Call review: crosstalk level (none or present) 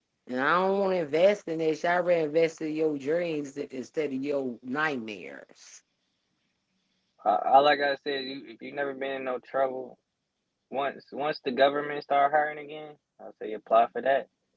none